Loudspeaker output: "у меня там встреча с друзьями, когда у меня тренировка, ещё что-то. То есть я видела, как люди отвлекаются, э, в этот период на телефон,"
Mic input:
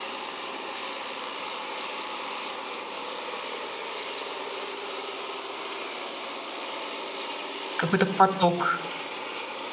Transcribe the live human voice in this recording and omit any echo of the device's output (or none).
Какой-то поток.